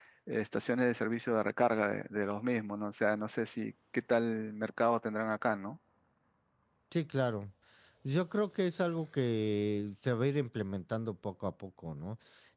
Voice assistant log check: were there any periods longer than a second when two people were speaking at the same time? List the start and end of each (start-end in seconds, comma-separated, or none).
none